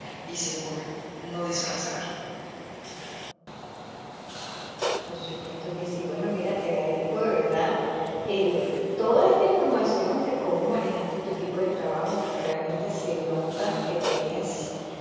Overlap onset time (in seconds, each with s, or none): none